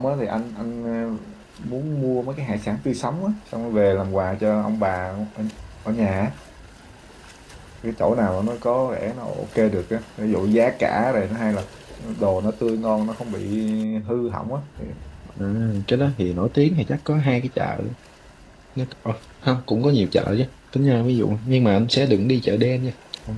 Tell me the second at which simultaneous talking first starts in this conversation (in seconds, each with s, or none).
none